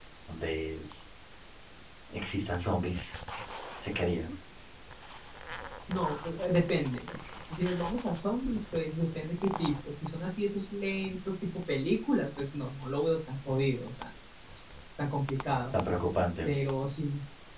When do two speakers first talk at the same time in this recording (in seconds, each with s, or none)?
none